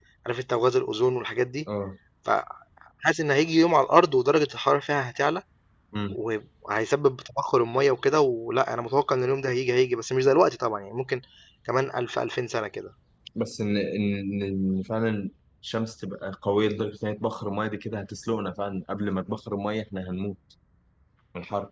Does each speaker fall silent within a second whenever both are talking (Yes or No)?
Yes